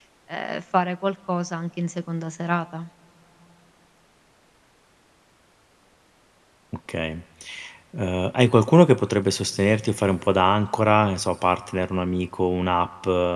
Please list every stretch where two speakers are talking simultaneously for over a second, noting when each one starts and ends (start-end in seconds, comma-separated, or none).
none